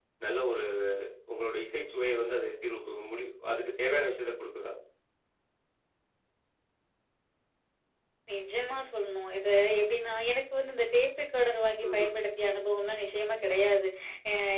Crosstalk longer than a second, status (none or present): none